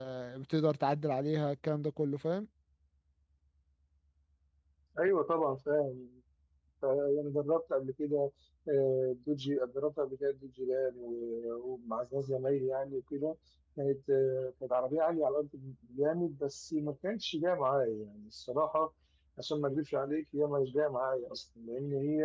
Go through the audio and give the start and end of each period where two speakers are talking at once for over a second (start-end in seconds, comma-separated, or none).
none